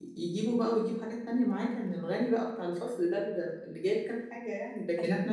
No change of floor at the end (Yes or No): Yes